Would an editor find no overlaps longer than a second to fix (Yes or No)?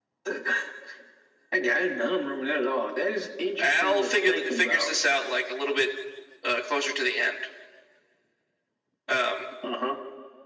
No